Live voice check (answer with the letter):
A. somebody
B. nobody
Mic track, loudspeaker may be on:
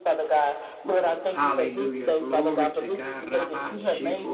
A